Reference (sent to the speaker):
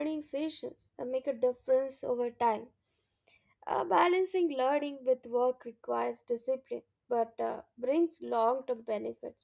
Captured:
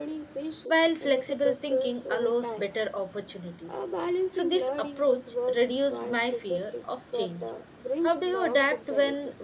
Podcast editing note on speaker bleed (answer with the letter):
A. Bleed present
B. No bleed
A